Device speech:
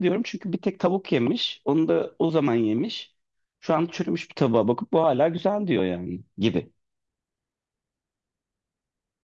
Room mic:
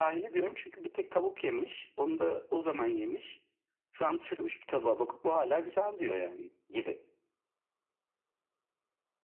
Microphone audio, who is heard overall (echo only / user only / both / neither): echo only